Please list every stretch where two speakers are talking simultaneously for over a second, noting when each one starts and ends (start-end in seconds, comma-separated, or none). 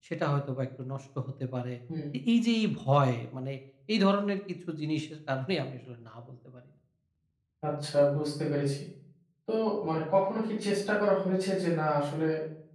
none